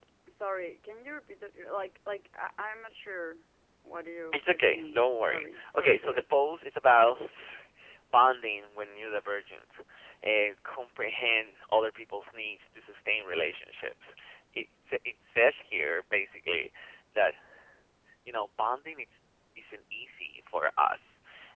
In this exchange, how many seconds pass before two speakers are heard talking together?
4 s

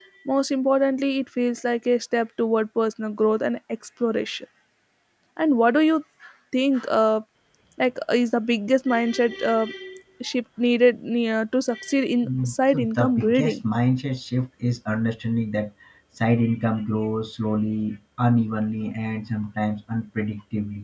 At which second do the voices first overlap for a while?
12 s

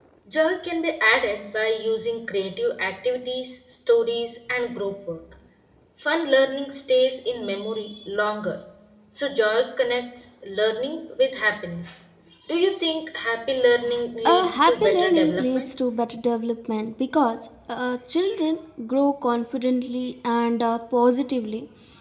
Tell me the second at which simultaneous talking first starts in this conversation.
14 s

